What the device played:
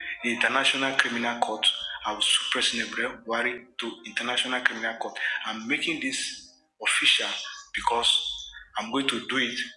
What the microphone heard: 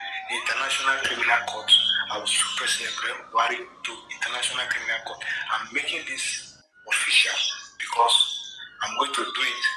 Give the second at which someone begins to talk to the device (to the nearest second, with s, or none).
none